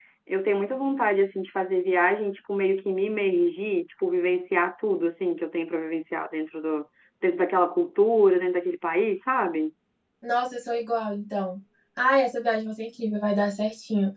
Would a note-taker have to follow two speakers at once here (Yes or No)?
No